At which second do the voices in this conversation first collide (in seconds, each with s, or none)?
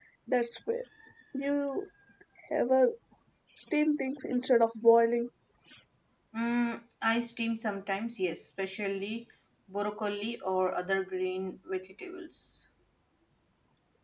none